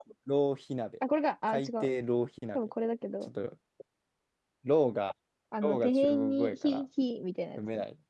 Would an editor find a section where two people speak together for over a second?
Yes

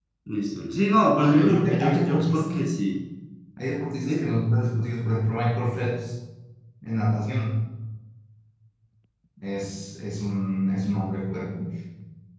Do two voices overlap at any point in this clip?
Yes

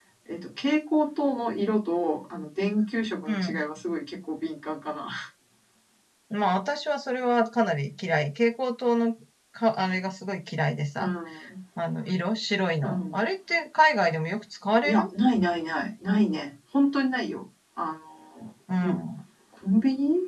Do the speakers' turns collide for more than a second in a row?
No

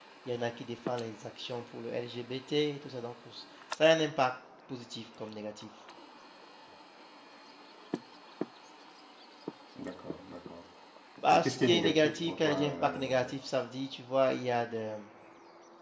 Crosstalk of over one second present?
Yes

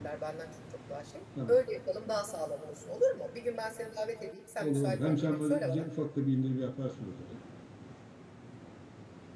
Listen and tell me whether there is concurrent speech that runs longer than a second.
Yes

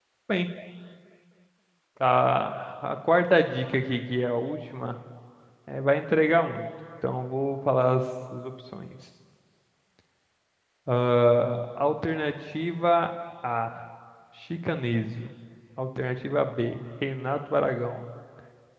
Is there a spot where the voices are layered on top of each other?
No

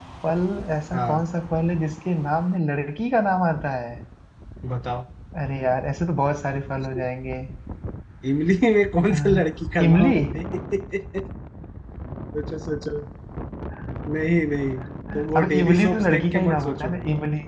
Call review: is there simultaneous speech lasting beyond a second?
Yes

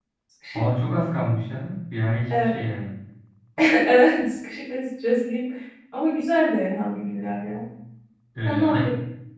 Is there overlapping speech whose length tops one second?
No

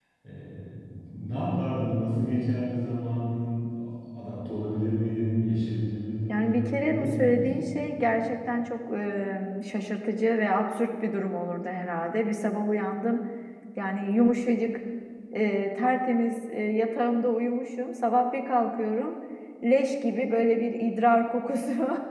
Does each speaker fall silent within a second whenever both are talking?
No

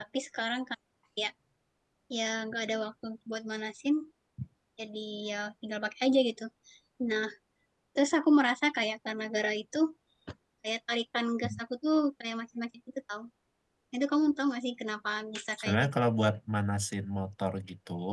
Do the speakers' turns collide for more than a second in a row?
No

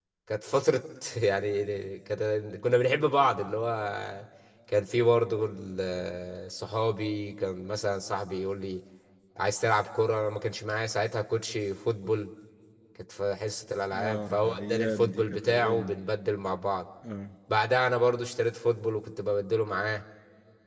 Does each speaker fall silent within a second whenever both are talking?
No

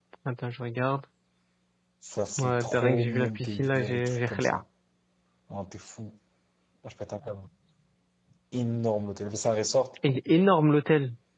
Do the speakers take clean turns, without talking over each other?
No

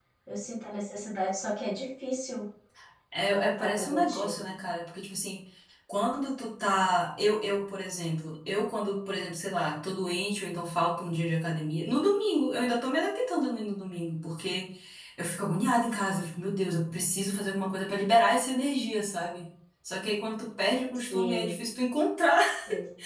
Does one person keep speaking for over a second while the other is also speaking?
Yes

